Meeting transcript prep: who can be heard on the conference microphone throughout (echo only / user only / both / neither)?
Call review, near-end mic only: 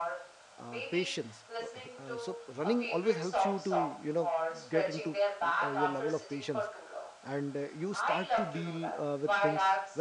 both